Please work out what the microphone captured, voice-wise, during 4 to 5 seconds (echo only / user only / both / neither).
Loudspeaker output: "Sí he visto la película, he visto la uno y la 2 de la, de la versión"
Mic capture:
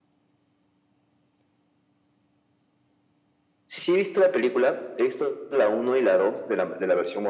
echo only